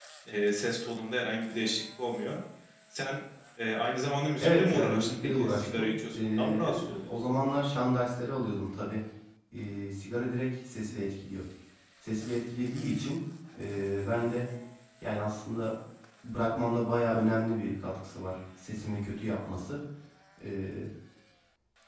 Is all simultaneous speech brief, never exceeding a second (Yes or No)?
No